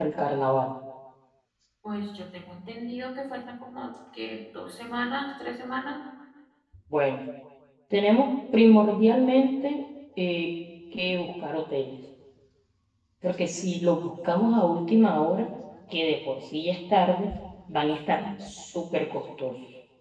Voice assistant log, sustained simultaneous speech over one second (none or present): none